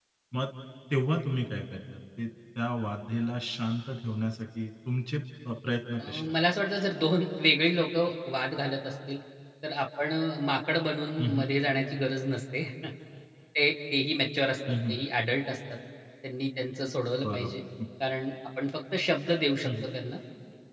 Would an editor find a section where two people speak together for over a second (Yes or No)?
No